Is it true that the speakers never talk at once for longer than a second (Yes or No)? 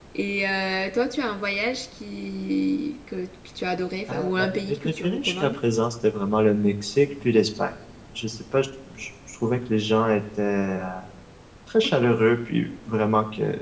No